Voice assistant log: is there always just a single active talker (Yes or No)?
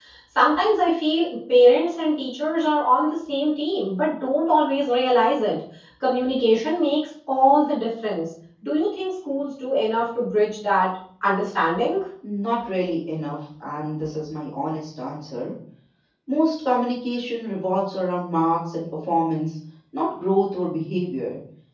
Yes